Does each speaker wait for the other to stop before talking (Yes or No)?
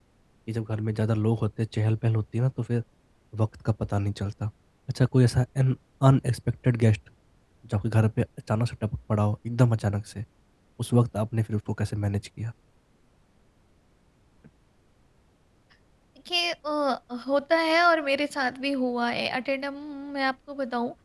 Yes